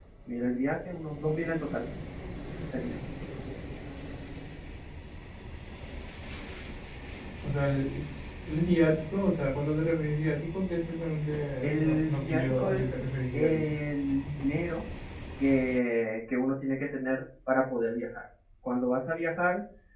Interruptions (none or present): present